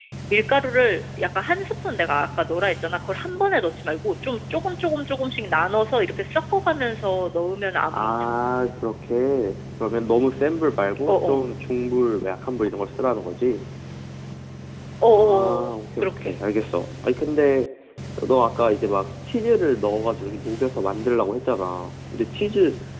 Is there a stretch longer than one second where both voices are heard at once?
Yes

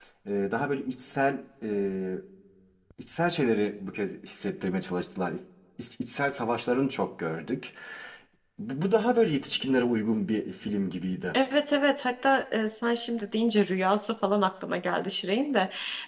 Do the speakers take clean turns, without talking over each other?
Yes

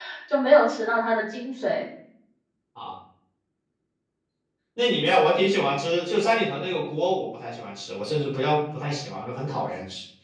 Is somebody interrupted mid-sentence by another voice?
No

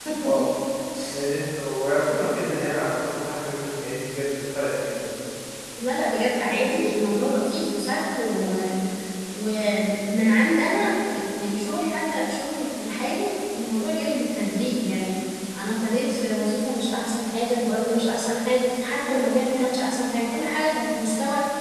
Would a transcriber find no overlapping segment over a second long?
Yes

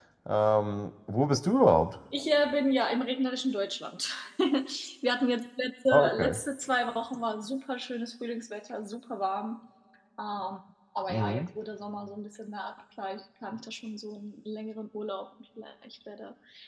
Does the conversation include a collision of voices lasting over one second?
No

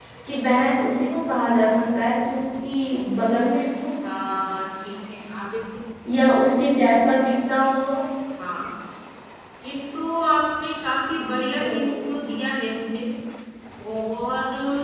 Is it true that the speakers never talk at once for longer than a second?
Yes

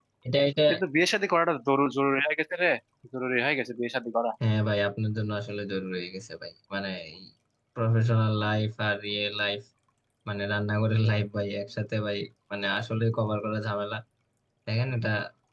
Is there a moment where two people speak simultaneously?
No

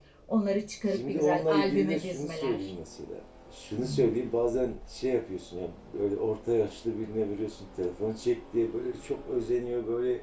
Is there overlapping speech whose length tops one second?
Yes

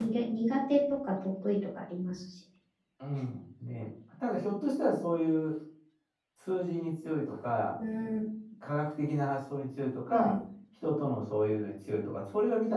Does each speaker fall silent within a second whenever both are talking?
Yes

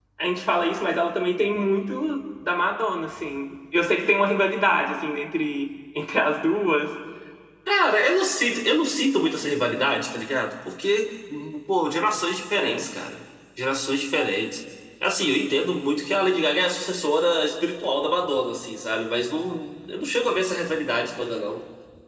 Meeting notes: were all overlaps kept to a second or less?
Yes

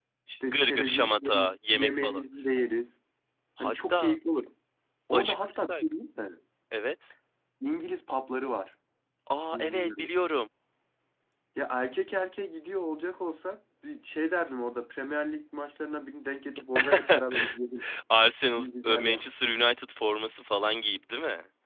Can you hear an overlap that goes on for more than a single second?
Yes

